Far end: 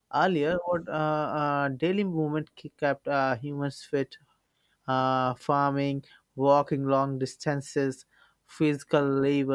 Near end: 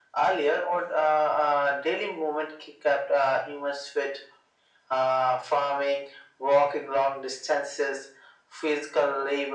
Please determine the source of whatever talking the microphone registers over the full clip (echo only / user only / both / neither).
echo only